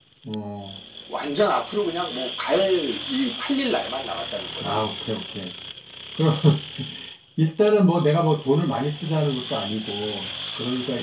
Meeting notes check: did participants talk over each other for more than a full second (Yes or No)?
No